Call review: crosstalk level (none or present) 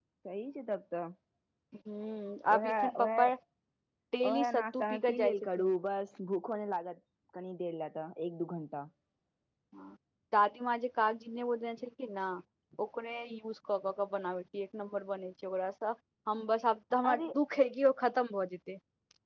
present